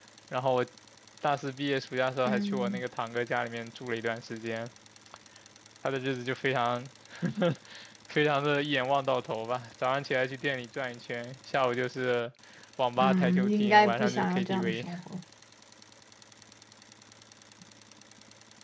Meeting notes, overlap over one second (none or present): present